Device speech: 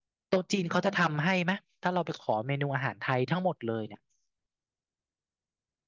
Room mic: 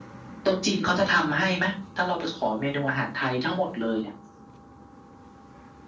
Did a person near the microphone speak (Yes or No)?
No